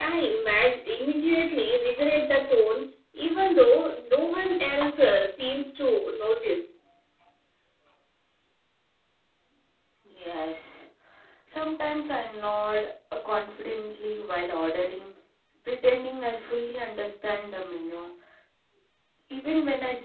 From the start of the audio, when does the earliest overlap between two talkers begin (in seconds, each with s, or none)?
none